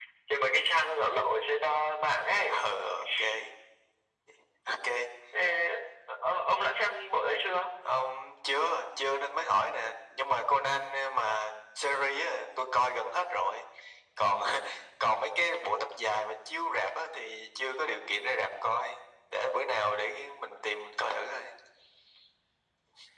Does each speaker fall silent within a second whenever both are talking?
Yes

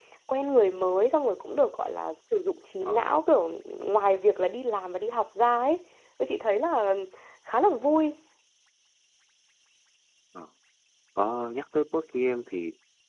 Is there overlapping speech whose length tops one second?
No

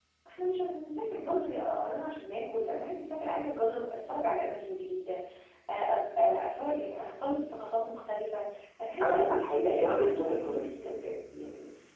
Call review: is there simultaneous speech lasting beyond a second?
Yes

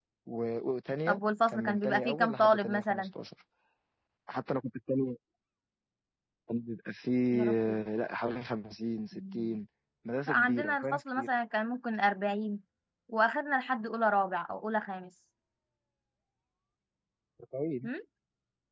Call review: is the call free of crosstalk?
No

